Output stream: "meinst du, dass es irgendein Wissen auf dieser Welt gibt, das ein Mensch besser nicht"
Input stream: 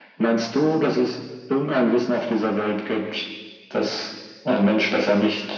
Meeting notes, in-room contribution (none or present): none